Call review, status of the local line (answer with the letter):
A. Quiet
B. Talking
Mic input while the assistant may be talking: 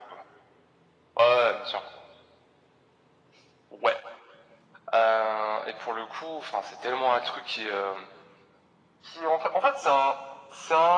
A